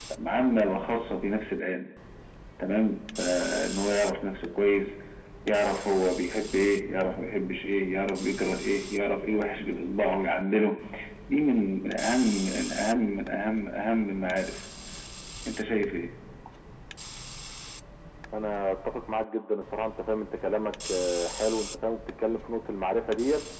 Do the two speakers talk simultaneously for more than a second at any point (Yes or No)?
No